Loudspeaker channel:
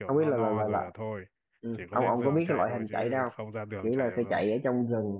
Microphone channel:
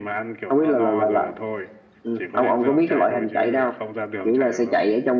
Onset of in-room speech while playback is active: none

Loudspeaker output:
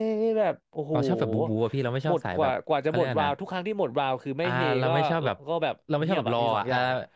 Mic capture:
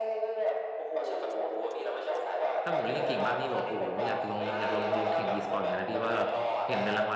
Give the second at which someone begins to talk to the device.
2.6 s

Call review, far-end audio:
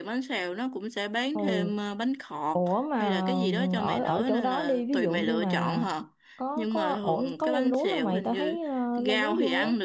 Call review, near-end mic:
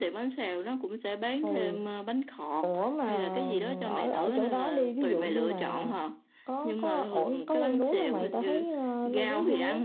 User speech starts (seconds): none

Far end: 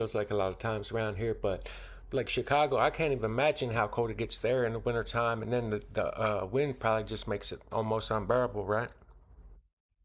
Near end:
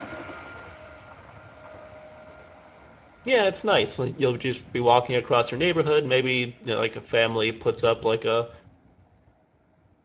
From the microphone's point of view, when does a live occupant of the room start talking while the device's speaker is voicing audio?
3.2 s

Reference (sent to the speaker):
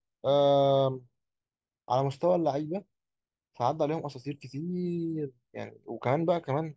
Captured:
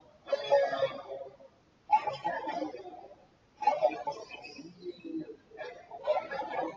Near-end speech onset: none

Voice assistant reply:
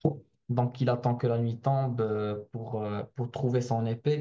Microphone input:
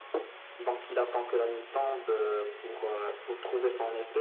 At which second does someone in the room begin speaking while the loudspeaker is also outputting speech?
none

